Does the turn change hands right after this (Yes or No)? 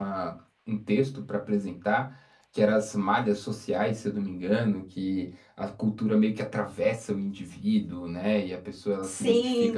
Yes